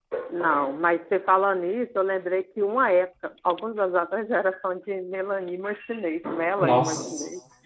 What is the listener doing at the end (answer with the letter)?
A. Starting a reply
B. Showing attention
A